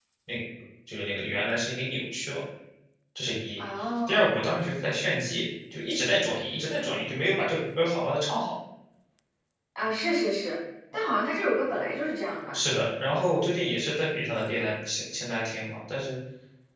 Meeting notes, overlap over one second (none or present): none